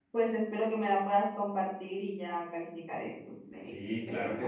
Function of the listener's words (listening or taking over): taking over